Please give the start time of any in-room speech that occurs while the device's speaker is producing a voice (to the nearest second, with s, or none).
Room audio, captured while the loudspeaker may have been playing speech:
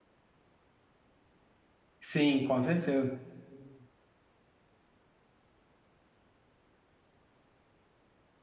2 s